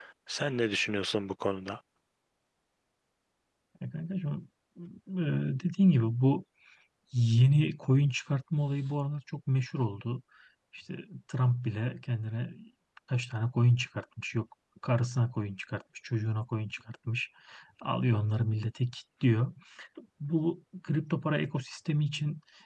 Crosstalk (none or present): none